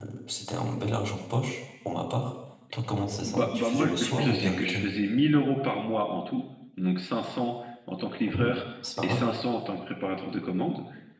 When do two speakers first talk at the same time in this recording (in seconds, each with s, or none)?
3.2 s